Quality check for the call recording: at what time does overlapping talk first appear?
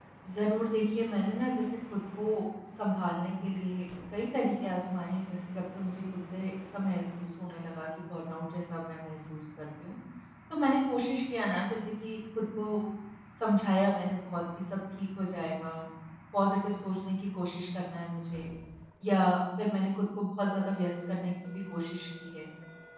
none

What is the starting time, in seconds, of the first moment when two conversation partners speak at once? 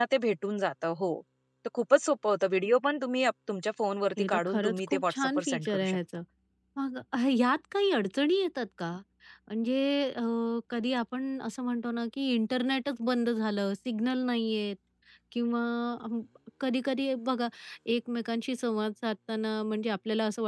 4.2 s

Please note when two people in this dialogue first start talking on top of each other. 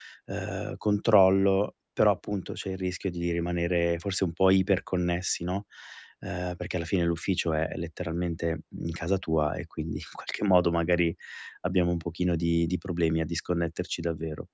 none

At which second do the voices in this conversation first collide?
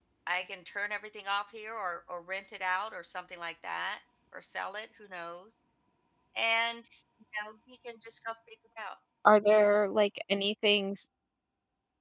none

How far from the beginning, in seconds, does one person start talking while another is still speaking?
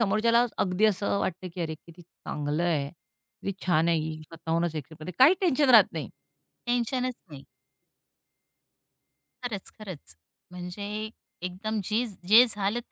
none

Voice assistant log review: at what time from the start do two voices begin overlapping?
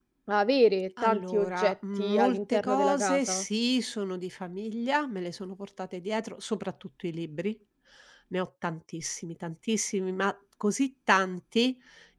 1.0 s

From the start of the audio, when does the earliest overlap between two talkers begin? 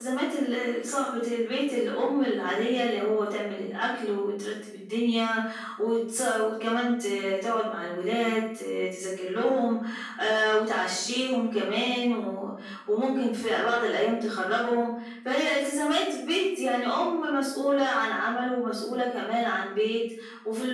none

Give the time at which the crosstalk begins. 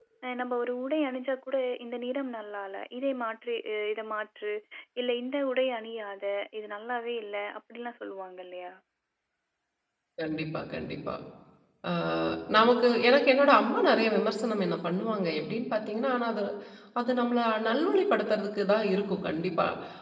none

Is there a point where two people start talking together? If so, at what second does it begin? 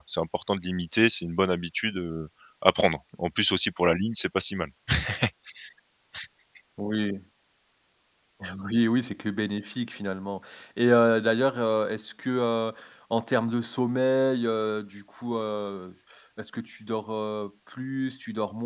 none

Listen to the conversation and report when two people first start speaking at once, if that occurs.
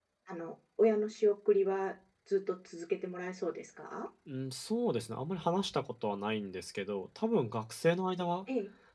none

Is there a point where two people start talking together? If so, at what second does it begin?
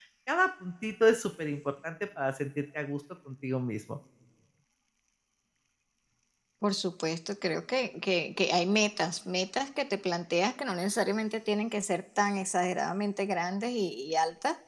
none

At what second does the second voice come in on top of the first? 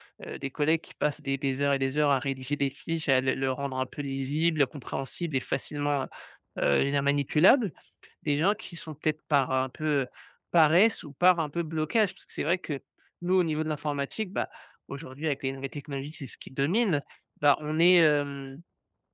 none

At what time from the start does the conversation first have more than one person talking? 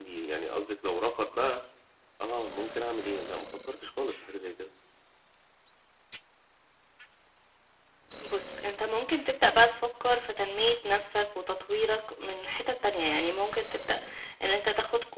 none

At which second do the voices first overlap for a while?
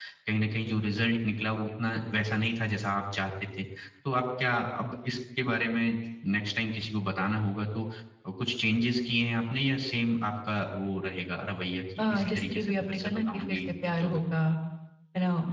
12.0 s

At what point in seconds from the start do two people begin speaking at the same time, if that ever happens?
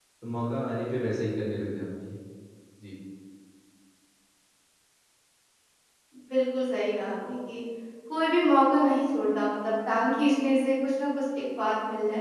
none

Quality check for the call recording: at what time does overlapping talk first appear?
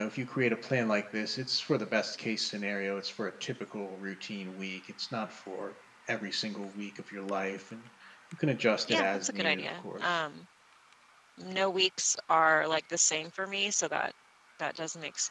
8.9 s

